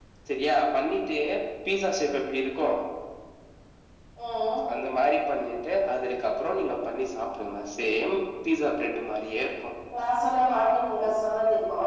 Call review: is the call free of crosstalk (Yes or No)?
Yes